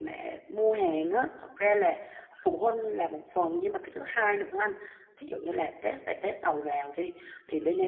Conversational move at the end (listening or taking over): listening